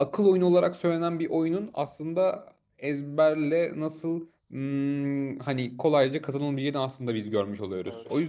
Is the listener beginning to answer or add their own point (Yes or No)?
Yes